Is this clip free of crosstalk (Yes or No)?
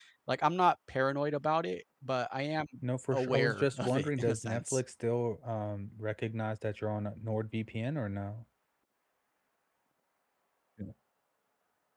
No